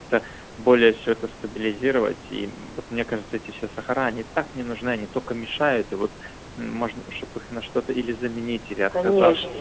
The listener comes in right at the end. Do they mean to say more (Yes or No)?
Yes